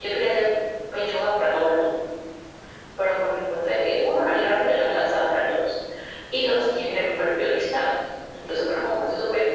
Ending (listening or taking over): listening